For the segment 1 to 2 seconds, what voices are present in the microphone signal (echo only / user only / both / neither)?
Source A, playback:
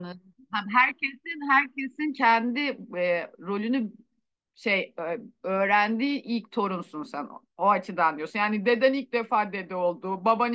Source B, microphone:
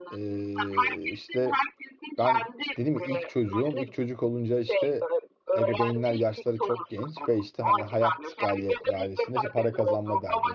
both